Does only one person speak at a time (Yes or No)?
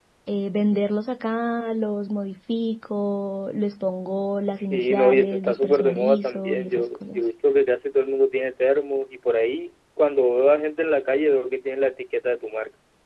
No